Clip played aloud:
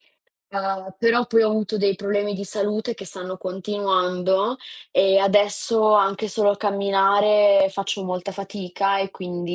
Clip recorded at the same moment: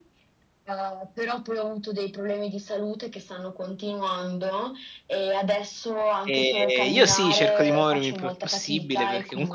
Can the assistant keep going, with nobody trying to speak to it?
No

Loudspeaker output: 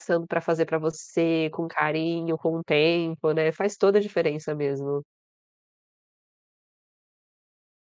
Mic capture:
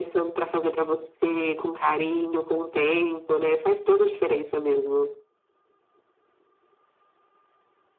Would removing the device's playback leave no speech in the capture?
Yes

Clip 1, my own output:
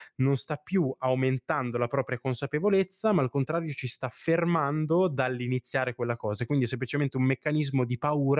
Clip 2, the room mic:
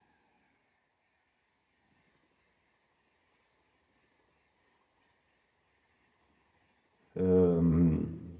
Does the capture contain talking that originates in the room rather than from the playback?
Yes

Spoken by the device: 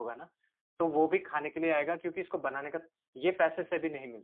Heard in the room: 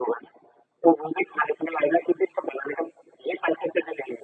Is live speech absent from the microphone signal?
Yes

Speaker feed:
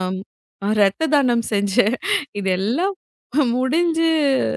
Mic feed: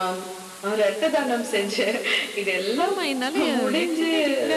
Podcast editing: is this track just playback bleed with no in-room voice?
No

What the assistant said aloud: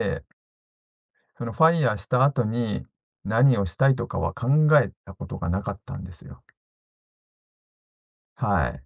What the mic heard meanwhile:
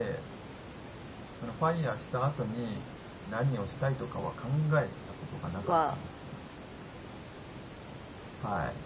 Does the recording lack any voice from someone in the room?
No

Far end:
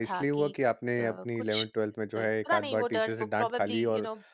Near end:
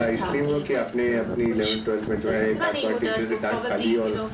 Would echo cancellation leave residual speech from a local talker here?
No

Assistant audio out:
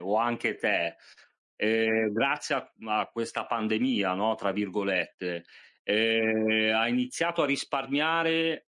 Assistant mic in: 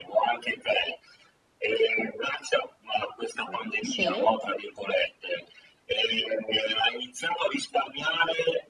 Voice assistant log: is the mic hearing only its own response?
No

